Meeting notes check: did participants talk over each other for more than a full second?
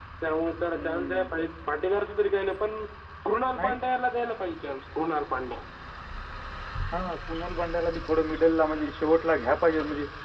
No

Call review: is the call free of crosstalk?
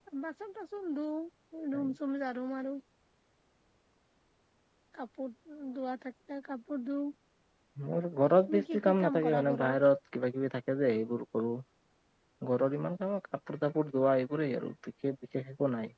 No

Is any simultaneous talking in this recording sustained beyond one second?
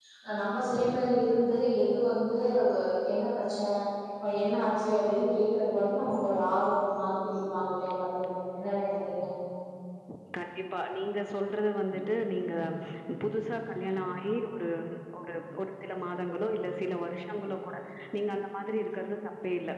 No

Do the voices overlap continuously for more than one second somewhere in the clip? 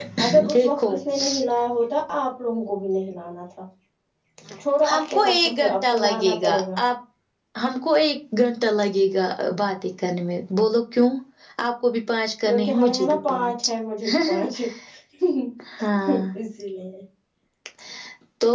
Yes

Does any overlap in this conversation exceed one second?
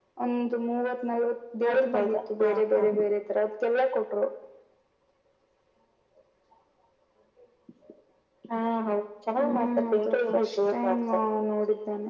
Yes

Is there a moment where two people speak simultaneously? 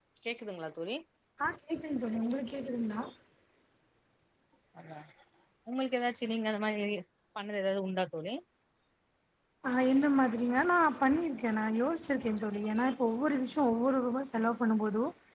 No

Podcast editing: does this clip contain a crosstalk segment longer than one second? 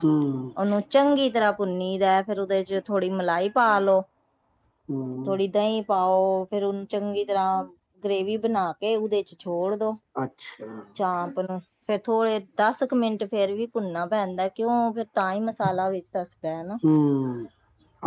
No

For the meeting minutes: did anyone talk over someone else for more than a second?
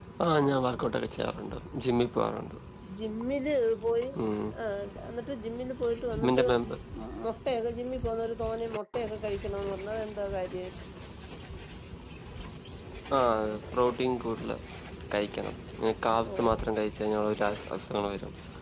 No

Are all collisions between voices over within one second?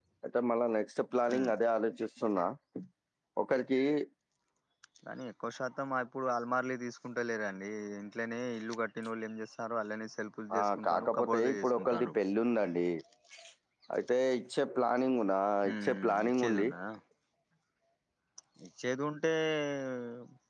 No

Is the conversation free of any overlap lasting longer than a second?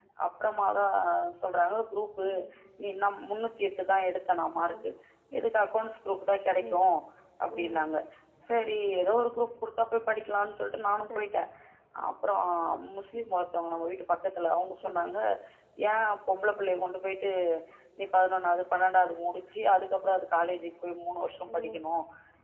Yes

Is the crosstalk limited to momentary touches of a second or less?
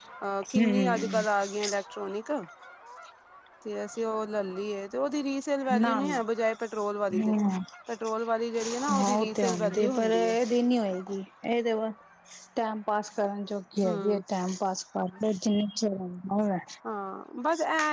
No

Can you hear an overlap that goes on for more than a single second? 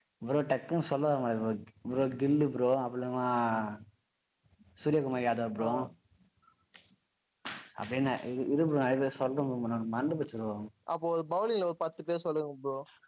No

